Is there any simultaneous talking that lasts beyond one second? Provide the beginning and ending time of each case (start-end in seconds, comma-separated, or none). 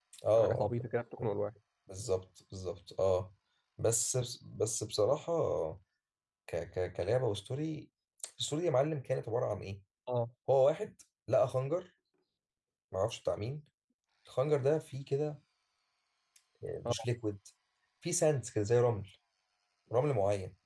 none